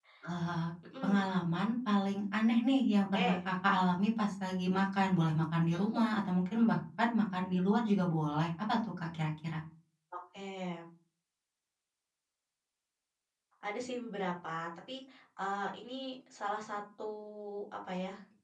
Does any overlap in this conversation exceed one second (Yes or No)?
No